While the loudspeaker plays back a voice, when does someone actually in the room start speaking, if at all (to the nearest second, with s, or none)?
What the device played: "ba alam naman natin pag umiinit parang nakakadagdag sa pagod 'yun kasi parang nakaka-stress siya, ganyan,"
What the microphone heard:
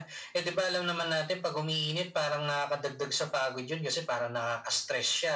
none